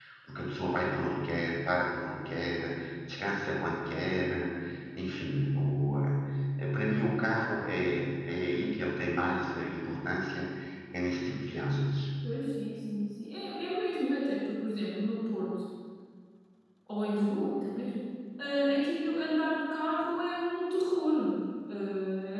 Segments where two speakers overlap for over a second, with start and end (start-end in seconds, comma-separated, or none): none